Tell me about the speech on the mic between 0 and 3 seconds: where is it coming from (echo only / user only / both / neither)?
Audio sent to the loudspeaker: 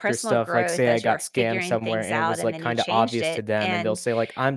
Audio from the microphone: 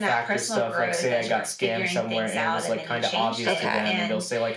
echo only